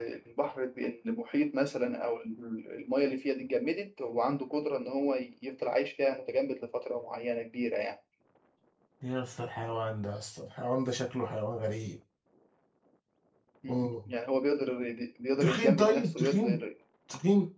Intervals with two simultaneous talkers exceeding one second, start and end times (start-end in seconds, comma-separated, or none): 15.4-16.6